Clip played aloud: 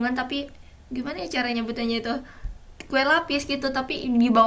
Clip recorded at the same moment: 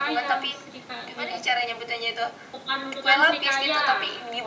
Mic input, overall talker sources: both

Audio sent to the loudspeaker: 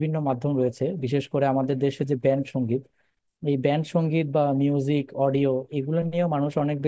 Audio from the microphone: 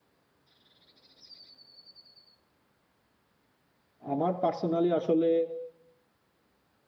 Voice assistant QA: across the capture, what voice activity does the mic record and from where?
user only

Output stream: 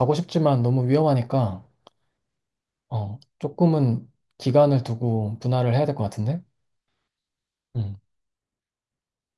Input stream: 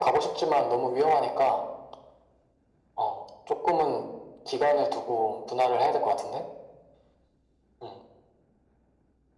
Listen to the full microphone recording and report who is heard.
echo only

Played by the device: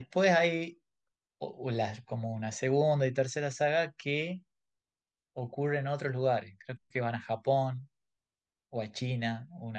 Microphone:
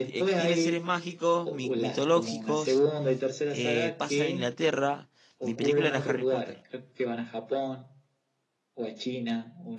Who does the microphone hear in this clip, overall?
both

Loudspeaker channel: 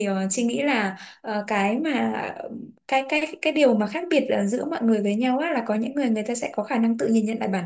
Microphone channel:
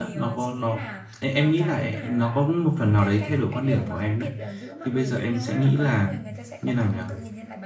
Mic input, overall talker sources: both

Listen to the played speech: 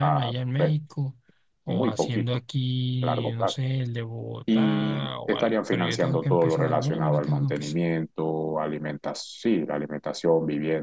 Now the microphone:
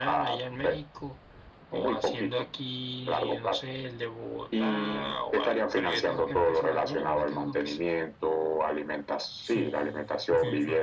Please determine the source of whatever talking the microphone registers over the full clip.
both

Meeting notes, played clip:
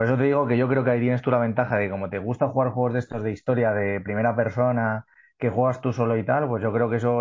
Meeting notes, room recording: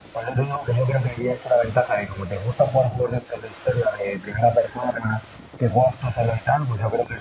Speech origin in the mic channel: echo only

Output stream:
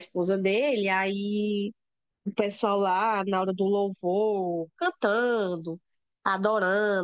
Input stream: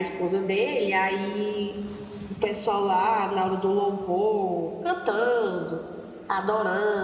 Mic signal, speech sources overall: echo only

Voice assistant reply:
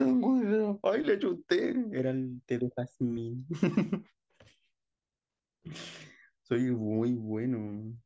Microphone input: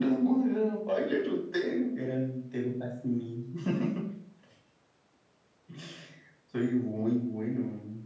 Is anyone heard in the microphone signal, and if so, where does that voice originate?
echo only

